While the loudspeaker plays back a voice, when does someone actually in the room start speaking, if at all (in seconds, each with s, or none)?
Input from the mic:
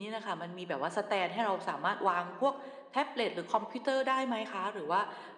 none